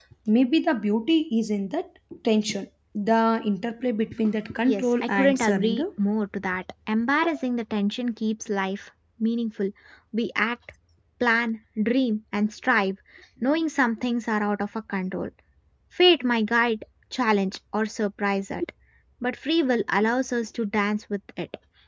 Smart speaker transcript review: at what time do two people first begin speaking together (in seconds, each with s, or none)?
4.6 s